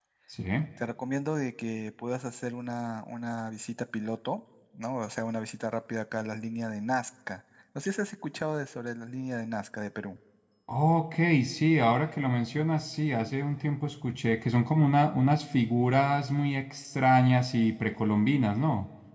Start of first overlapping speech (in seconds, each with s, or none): none